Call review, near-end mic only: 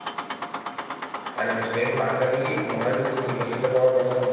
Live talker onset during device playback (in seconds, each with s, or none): 1.4 s